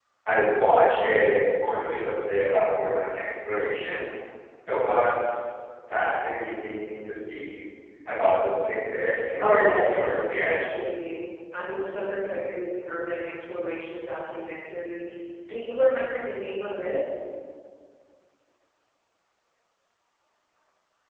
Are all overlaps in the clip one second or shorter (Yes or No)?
No